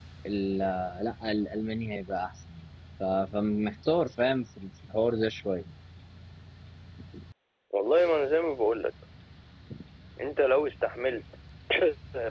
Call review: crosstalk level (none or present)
none